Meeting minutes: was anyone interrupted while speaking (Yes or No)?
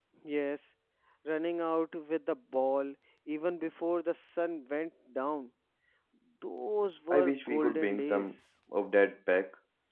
Yes